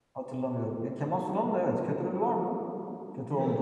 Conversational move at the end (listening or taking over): taking over